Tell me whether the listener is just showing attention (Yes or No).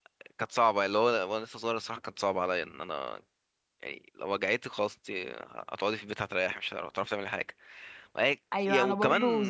No